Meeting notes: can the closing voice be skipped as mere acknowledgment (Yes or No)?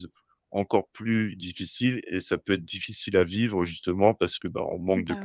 Yes